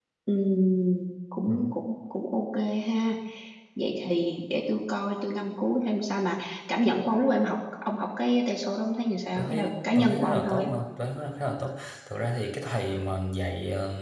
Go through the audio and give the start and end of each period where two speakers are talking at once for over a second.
9.3-10.7

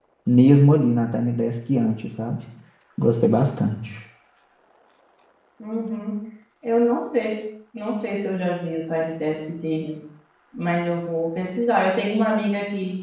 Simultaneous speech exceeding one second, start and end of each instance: none

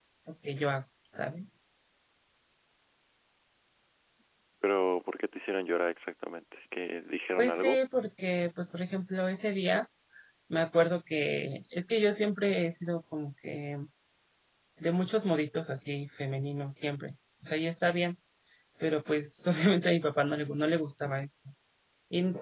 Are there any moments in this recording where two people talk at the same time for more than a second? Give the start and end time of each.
none

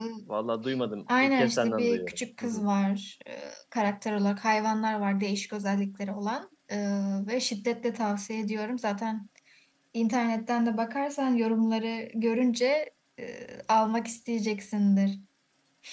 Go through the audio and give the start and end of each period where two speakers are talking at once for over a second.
1.2-2.6

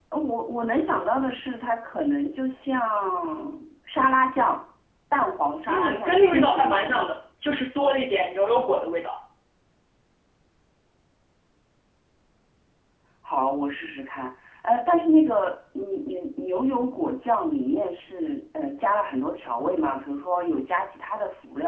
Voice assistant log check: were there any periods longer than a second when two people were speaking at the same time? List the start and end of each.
5.7-7.1

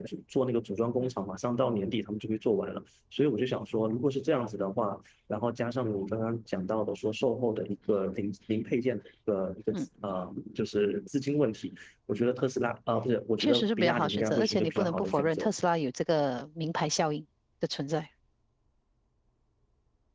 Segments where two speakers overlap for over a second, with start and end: 13.4-15.5

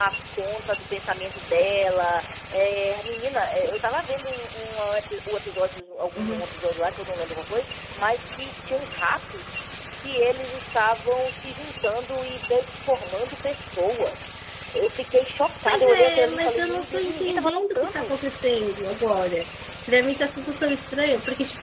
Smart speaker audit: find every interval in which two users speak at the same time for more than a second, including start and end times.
15.7-18.1

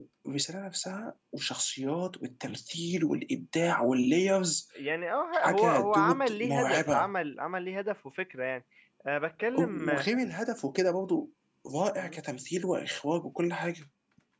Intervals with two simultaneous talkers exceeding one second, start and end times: 5.3-7.1

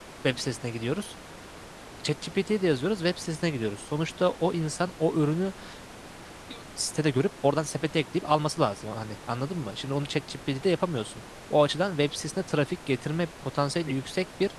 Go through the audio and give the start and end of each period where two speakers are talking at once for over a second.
none

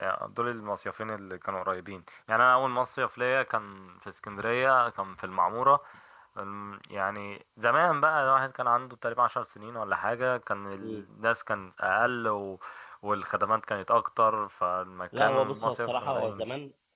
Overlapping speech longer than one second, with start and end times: 15.2-16.4

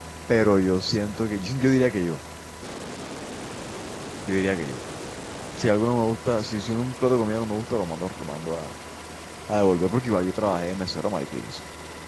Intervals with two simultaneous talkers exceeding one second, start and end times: none

